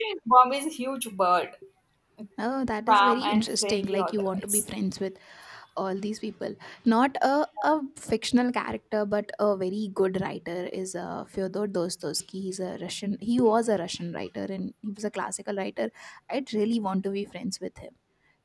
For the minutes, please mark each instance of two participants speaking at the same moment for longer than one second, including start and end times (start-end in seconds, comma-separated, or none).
2.9-4.6